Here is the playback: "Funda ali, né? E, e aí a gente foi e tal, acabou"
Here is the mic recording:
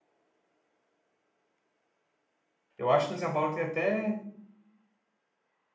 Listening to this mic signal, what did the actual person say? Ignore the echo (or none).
eu acho que em São Paulo tem até.